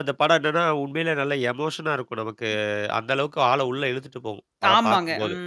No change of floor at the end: No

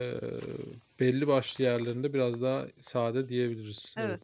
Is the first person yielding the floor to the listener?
Yes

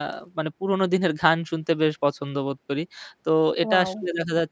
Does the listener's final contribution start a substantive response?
No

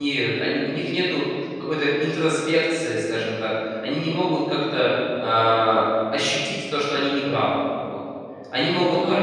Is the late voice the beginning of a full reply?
Yes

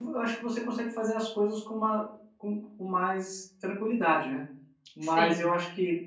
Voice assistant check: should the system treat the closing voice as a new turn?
No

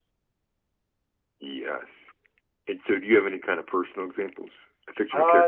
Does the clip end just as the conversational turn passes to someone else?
Yes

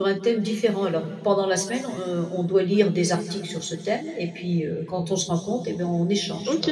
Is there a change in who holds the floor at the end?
Yes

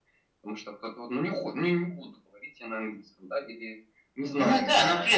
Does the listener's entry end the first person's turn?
Yes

